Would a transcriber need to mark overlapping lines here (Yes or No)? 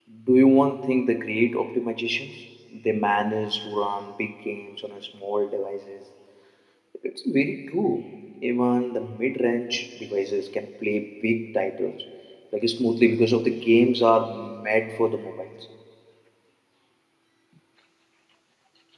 No